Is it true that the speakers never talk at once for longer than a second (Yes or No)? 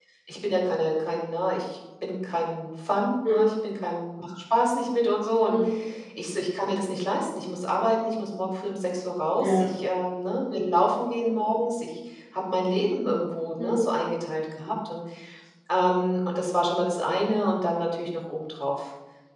Yes